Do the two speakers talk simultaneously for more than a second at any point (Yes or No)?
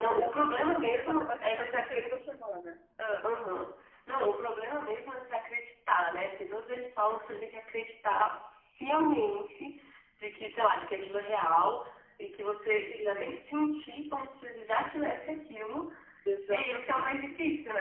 Yes